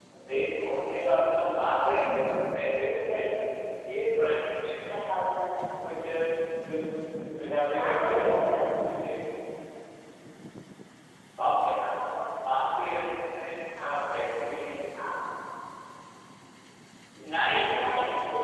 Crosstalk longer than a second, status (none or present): present